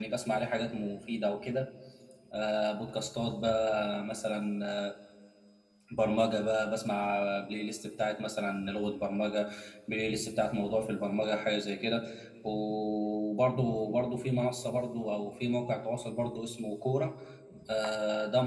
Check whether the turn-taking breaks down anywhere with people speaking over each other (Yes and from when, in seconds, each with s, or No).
No